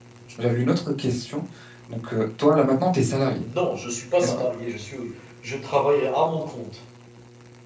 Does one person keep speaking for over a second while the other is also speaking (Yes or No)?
No